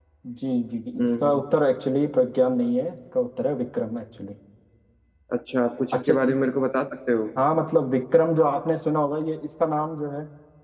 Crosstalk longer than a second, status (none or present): none